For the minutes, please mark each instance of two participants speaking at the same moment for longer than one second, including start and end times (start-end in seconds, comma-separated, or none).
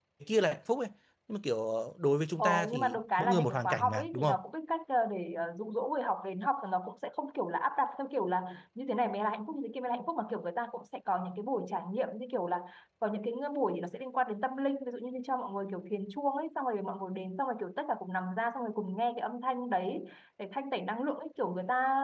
2.4-4.2